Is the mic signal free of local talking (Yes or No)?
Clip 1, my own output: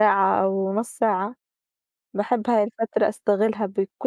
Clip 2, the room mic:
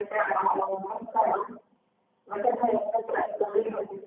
Yes